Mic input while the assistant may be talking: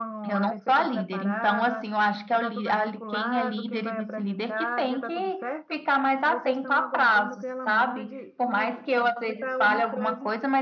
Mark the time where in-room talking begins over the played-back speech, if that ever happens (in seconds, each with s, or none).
6.2 s